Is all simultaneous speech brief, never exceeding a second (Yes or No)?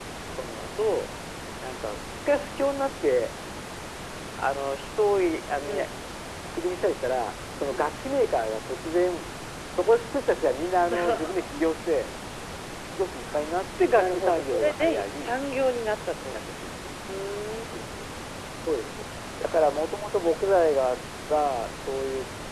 No